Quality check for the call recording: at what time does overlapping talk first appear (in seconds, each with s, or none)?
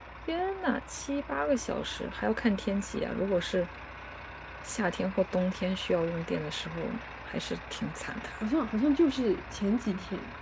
none